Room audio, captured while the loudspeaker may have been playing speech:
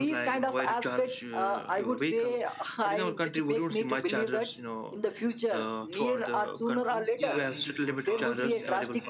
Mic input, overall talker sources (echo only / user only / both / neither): both